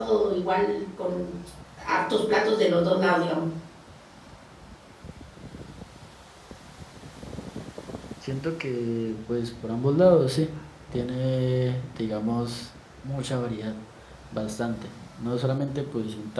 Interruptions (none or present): none